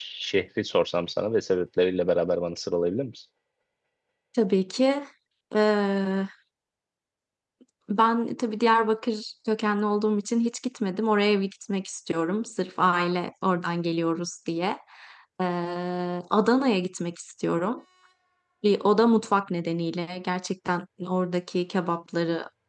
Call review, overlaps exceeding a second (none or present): none